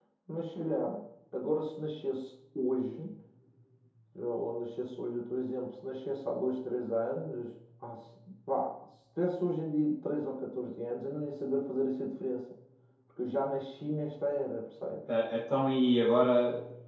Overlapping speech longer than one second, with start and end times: none

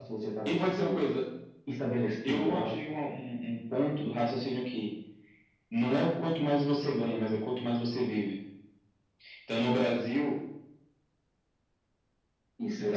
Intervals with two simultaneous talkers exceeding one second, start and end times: none

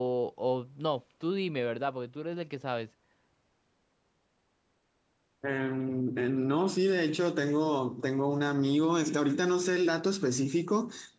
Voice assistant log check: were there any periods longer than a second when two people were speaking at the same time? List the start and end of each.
none

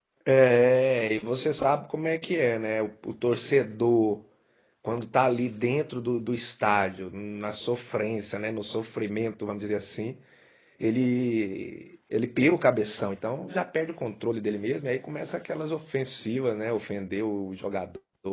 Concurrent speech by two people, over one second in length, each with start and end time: none

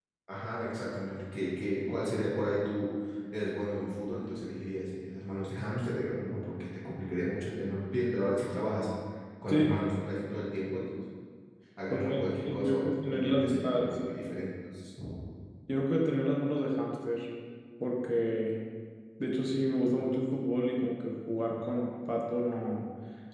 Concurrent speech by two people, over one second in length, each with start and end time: 11.9-14.0

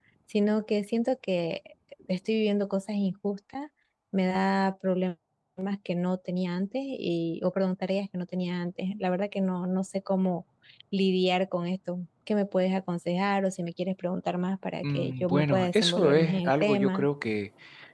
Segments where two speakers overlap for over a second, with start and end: 14.8-17.1

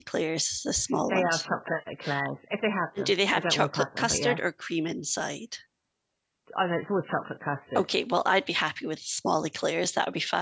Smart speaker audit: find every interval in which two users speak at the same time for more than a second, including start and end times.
3.0-4.4

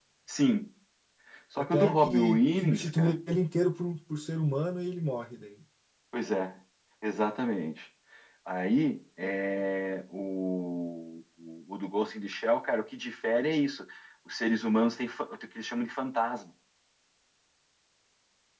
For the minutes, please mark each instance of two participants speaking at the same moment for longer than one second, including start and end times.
1.7-3.1

